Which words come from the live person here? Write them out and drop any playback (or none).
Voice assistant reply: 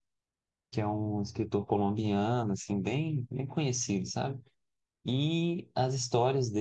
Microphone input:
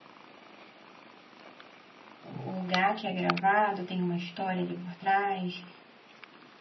O lugar que é gravado tem uma história ali por trás,